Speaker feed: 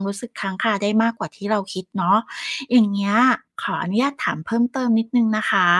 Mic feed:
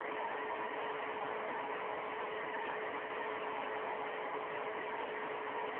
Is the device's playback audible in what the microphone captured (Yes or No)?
No